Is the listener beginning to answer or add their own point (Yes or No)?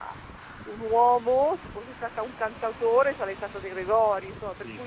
No